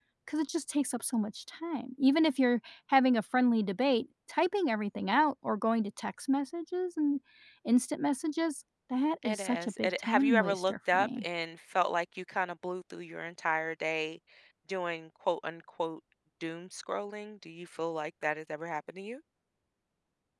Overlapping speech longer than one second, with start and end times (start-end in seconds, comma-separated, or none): 9.2-11.2